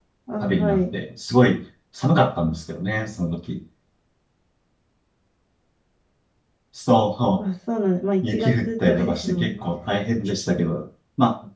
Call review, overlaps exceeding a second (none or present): present